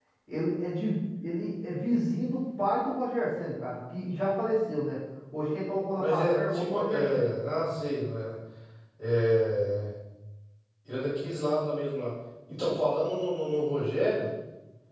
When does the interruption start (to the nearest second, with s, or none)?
6 s